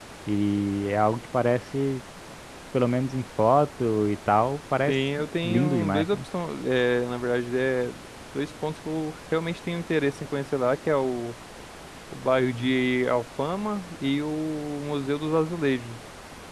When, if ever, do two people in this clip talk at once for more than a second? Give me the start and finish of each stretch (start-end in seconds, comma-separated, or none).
4.9-6.2